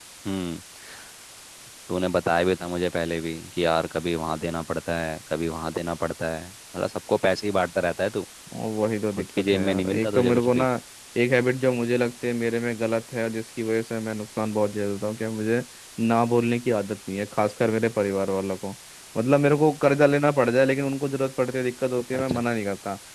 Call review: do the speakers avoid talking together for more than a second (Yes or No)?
No